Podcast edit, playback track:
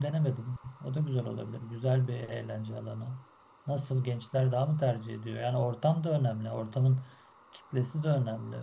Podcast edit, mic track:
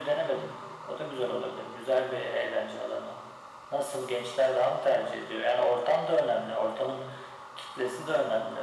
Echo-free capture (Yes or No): No